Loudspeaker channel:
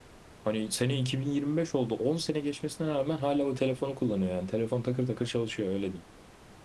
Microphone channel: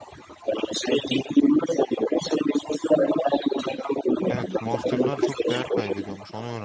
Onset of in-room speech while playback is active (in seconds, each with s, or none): 4.3 s